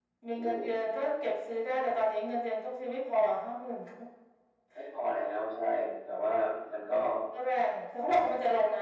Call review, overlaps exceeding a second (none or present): none